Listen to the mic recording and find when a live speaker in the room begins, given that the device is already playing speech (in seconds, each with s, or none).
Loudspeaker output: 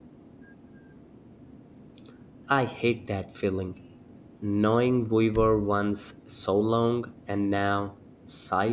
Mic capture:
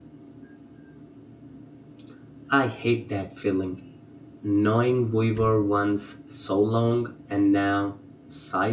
none